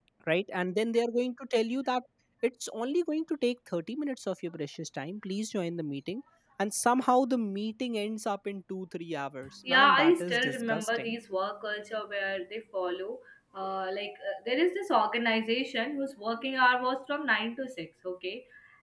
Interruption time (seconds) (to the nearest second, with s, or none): 10 s